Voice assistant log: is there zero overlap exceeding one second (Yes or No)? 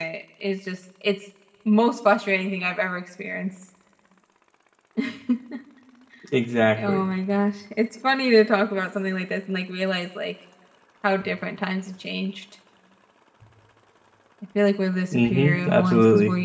No